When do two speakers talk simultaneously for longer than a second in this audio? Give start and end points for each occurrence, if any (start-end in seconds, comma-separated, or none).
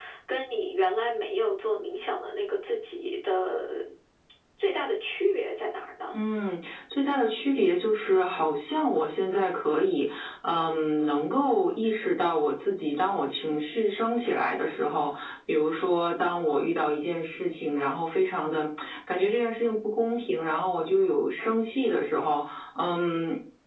none